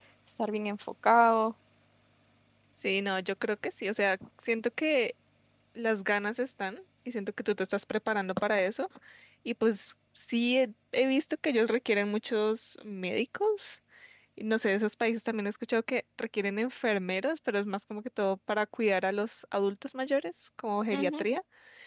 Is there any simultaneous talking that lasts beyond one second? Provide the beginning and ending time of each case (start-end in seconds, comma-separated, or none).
none